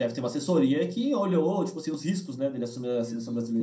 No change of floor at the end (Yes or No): No